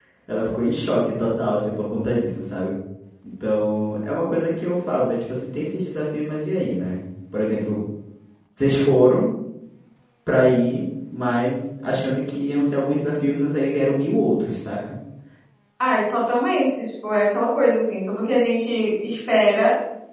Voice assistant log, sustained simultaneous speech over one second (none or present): none